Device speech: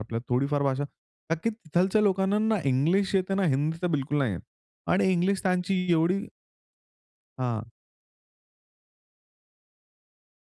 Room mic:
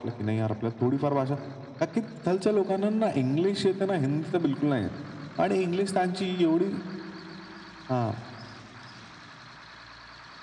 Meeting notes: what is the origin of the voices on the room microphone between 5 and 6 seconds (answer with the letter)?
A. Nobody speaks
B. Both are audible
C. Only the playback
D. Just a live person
C